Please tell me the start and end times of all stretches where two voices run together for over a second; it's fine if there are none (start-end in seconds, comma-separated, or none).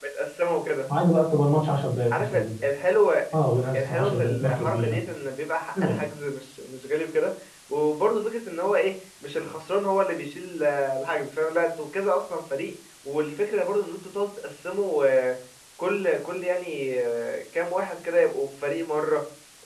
3.8-5.0